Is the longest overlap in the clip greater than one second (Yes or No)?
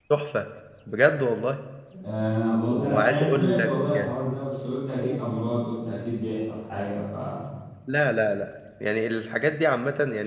Yes